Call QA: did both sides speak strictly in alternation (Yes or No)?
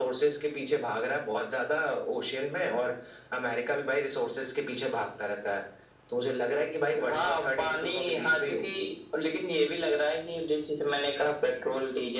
No